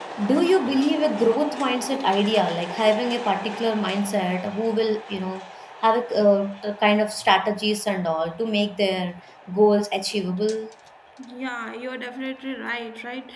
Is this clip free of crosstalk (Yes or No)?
Yes